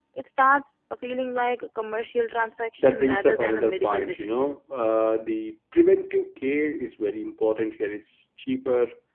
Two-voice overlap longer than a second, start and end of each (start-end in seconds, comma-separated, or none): 2.8-4.6